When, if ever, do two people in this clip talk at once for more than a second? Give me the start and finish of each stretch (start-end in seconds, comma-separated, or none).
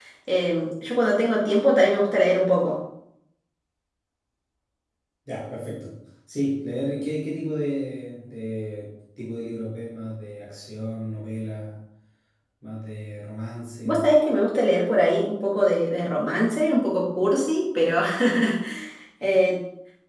none